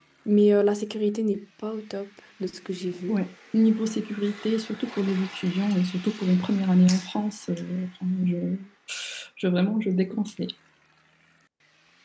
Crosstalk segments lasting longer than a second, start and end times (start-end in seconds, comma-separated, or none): none